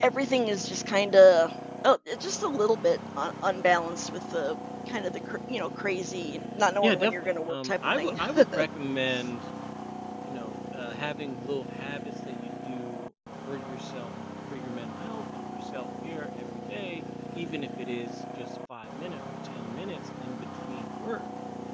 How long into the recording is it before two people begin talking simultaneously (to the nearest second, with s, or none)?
7 s